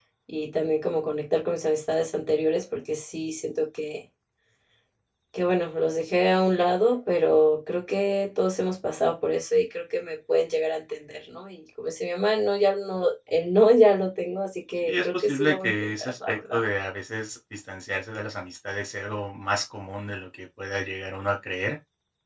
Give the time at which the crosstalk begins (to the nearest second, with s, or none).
15 s